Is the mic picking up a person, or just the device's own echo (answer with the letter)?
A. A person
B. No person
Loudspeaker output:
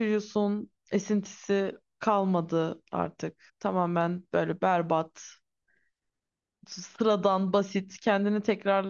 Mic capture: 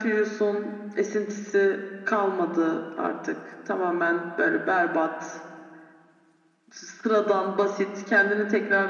B